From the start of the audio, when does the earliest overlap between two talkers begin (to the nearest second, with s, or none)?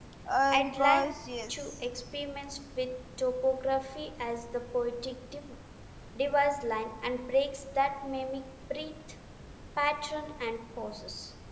1 s